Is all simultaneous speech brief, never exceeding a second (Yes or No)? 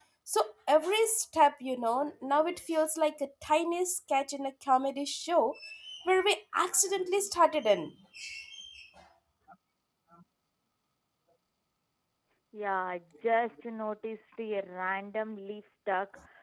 Yes